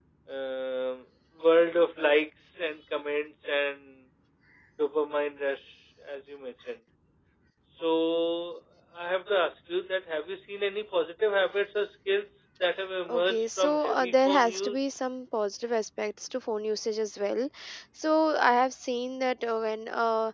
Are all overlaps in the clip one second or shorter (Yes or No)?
No